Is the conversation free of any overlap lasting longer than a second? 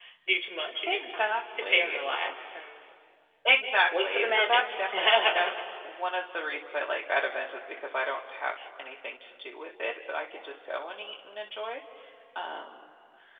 No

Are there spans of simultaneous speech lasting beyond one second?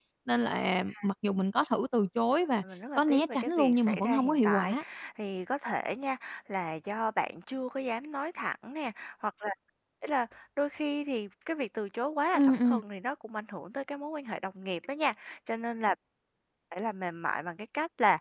Yes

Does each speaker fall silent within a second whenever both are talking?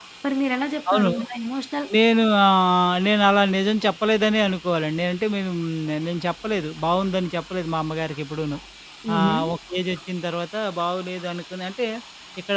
Yes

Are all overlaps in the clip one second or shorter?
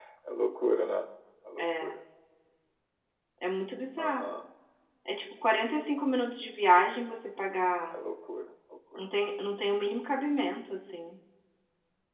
Yes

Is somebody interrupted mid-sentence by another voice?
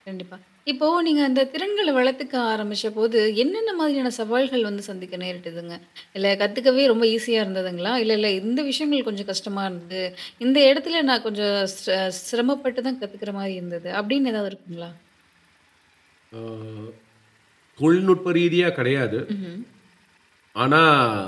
No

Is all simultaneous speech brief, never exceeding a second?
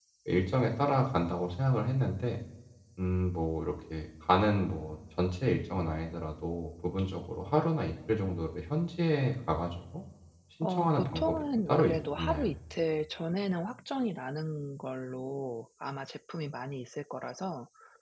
No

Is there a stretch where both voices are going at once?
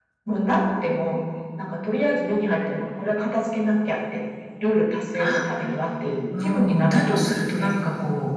Yes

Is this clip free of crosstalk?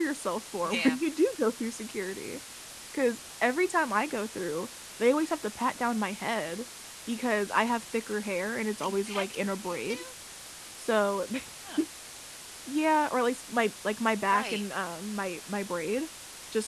No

